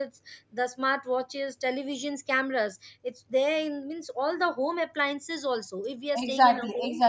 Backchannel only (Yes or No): No